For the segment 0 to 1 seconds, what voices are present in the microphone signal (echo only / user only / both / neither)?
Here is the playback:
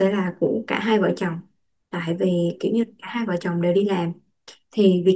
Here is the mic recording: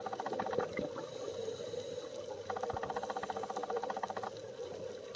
neither